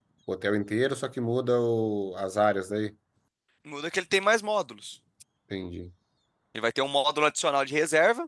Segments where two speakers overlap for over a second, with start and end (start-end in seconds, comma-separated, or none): none